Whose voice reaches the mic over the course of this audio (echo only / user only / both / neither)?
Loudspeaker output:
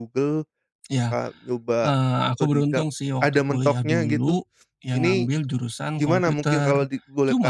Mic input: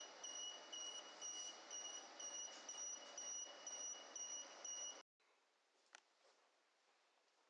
neither